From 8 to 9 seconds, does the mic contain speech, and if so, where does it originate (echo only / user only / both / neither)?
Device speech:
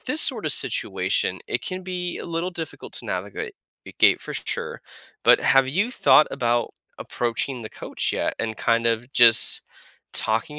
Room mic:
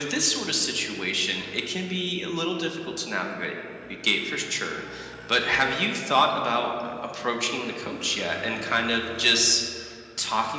echo only